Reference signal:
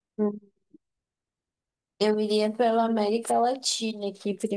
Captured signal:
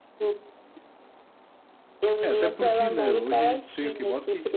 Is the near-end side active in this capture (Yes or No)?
Yes